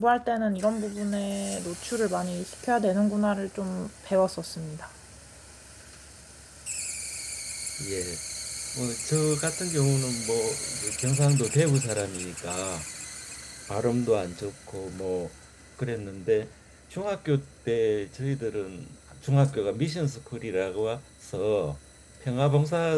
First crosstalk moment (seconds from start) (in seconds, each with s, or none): none